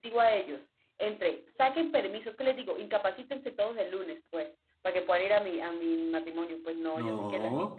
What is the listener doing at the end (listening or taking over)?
listening